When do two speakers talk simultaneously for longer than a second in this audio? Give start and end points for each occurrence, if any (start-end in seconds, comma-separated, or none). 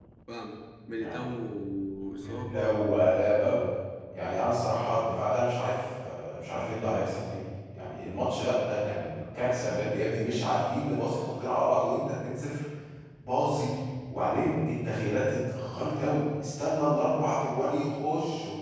2.3-3.6